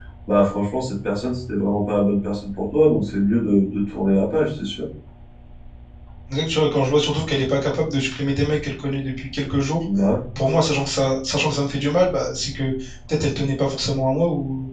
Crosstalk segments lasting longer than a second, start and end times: none

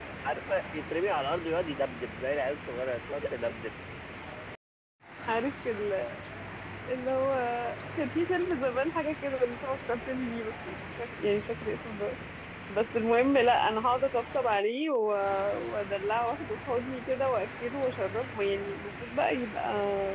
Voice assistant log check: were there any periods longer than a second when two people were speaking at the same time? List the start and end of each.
none

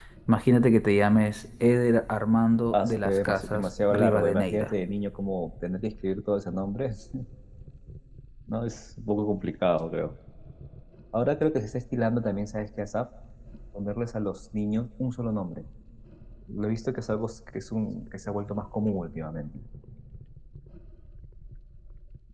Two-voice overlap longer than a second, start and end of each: 2.7-4.7

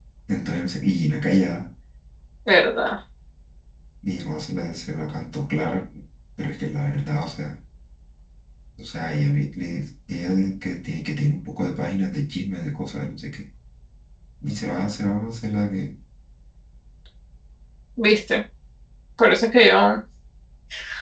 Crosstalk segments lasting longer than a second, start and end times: none

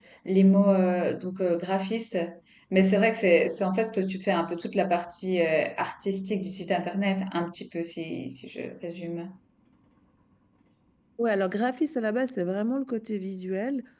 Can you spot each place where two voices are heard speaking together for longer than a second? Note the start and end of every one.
none

